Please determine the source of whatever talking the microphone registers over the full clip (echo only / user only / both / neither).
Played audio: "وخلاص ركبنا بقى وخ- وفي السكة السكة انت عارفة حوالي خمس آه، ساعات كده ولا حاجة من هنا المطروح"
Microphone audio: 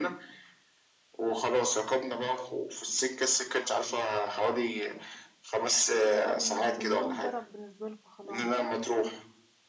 both